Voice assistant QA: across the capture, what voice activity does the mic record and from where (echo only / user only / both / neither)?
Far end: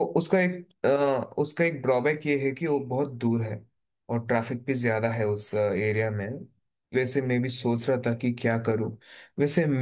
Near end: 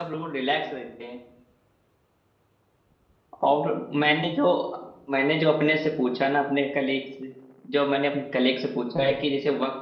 user only